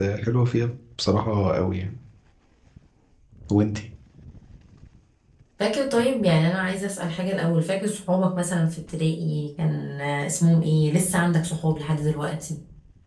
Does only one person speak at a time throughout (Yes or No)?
Yes